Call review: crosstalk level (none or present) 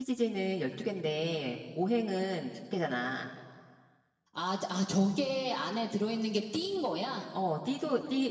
none